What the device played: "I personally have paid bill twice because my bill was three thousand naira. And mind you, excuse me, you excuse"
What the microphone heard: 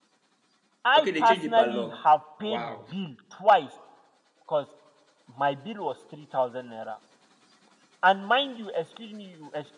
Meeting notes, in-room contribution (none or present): present